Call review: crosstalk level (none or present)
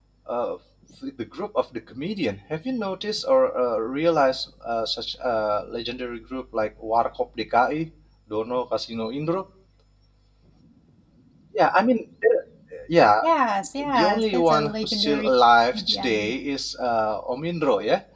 present